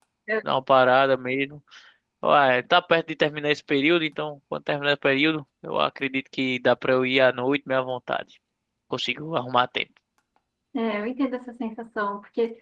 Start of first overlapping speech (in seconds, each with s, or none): none